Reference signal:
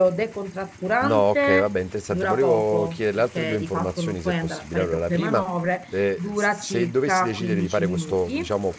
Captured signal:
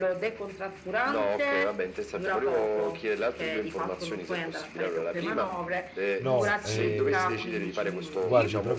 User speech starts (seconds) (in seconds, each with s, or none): 6.2 s